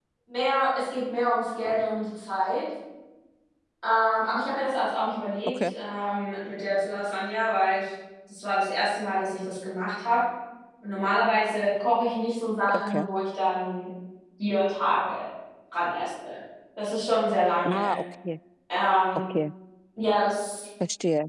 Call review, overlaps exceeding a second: none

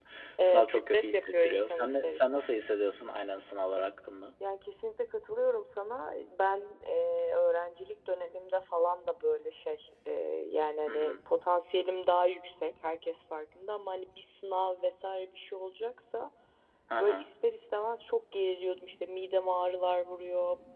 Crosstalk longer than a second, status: present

